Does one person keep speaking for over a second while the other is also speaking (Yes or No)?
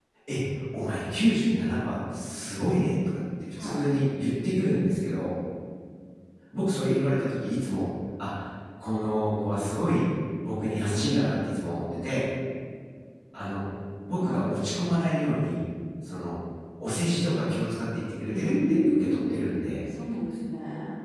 Yes